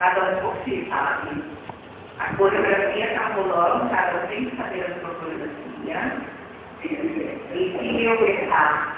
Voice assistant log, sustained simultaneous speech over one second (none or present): present